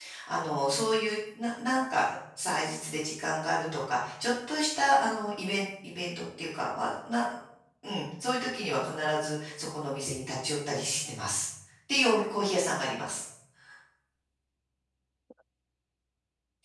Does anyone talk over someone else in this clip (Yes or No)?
No